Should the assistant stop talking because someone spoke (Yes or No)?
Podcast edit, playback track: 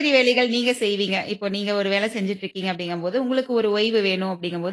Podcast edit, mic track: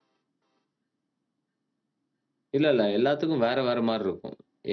Yes